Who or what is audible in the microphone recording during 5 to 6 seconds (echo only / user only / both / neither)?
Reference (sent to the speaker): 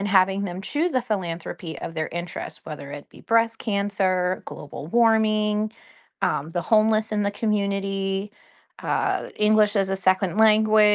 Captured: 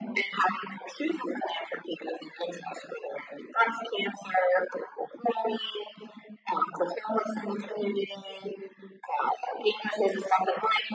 echo only